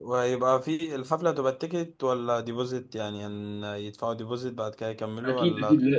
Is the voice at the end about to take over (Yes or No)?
Yes